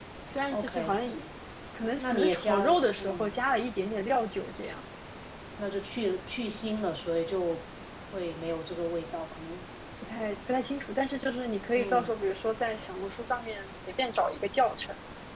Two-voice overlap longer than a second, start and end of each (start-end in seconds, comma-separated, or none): 2.0-3.3